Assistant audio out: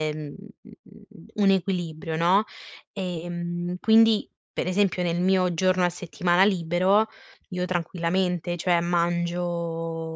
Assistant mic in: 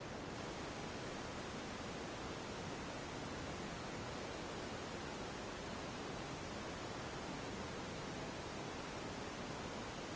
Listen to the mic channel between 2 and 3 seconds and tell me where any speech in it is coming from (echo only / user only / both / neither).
neither